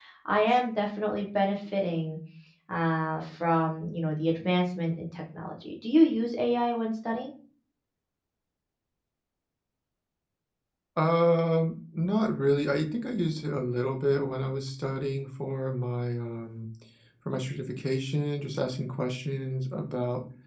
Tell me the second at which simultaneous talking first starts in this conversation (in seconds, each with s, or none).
none